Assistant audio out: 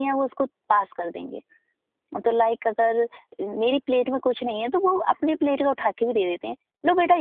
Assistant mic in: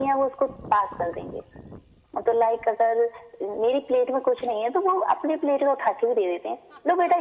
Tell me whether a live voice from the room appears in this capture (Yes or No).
No